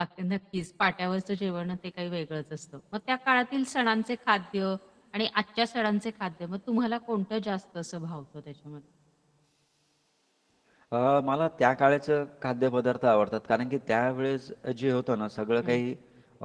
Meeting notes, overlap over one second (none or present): none